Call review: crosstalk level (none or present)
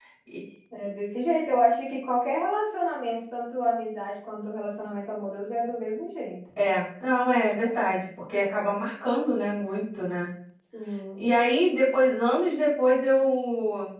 none